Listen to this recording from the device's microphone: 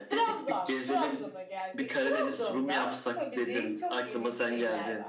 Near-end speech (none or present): present